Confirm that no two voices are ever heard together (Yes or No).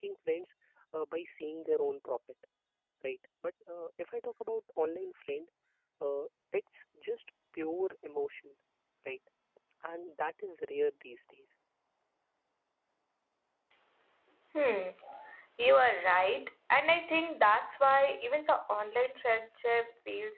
Yes